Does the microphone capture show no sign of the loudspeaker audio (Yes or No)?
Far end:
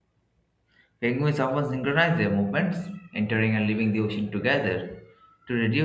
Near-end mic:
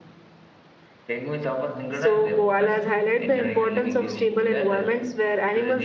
No